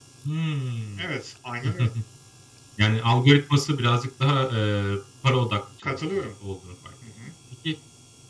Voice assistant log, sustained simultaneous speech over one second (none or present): none